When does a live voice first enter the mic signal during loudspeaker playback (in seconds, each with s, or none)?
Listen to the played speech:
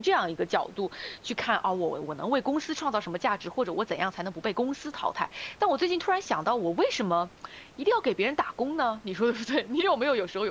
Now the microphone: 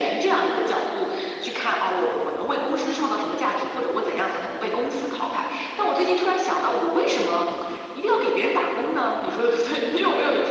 none